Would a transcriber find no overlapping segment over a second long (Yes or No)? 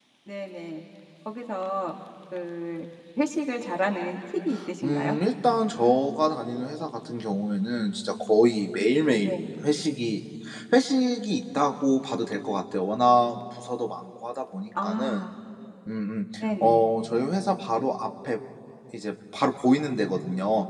Yes